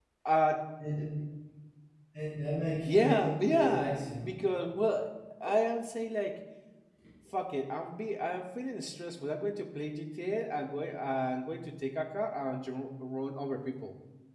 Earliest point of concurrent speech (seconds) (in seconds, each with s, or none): 2.9 s